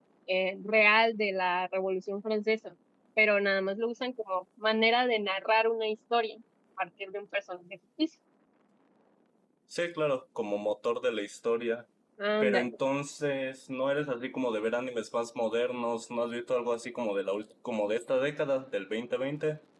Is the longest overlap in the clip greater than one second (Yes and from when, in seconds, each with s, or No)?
No